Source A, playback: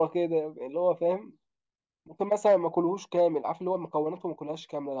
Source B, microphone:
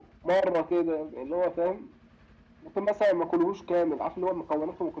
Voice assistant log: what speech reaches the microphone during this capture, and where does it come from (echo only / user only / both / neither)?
echo only